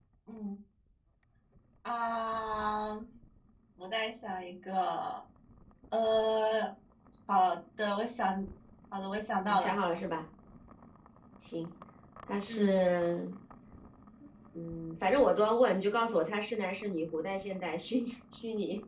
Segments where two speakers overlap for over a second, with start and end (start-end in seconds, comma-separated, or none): none